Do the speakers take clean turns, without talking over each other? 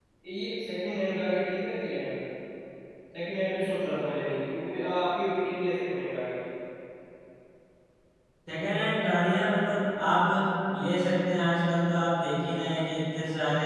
Yes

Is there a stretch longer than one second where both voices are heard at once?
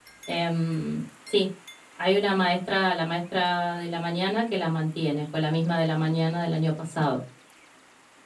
No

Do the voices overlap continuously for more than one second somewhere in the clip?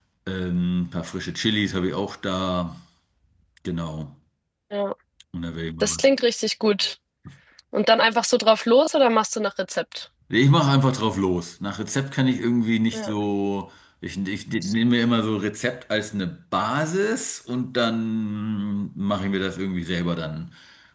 No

